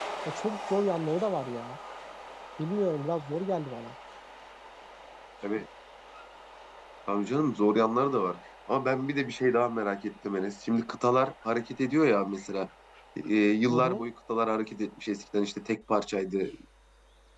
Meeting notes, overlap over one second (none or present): none